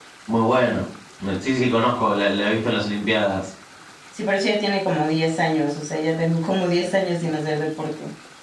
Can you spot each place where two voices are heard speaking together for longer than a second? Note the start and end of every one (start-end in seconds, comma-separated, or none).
none